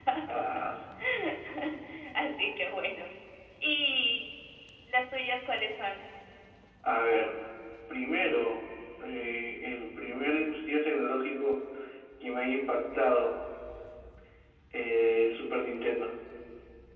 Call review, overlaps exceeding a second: none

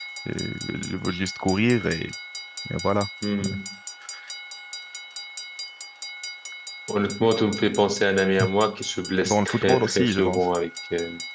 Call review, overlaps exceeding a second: present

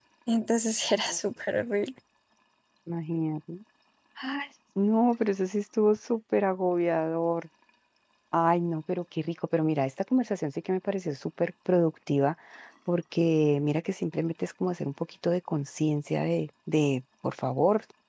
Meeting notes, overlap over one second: none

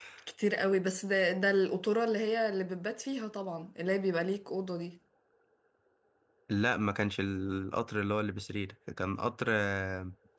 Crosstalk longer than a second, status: none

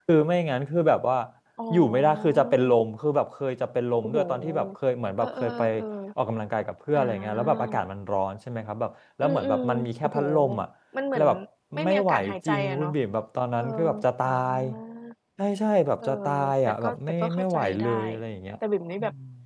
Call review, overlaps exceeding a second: present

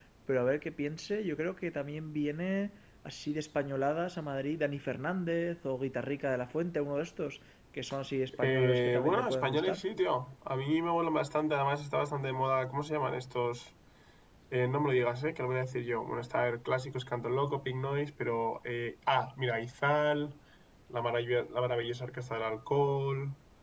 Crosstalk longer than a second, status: present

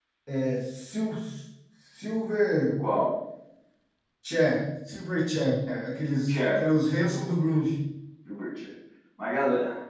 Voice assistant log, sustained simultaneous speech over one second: none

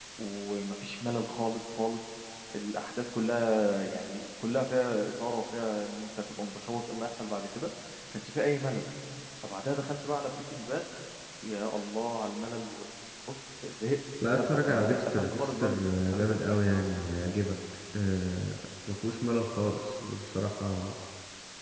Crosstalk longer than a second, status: present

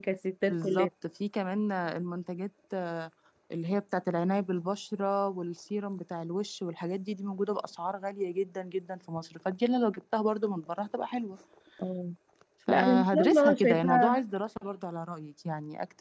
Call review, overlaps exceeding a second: present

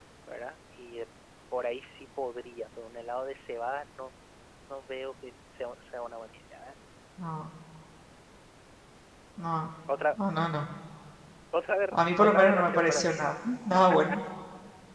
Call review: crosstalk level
present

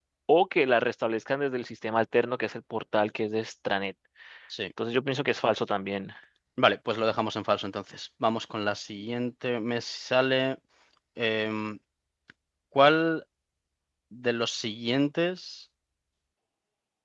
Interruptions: none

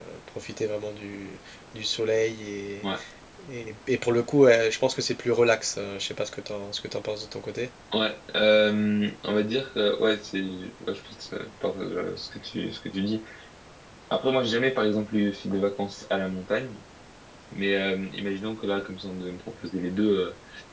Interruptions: none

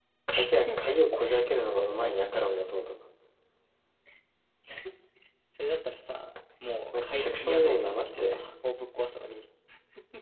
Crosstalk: present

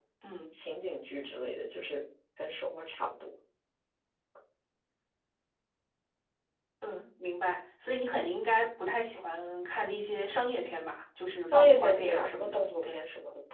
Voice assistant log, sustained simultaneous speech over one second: present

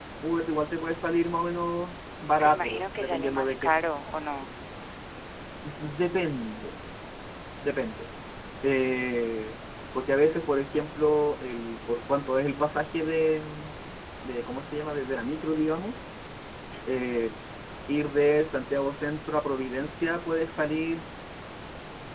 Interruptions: present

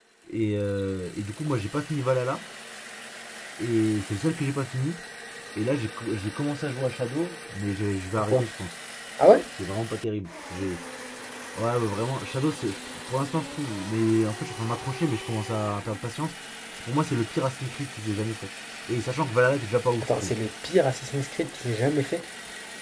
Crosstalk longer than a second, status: none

